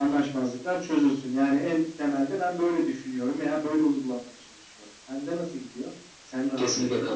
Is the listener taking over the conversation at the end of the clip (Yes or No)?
Yes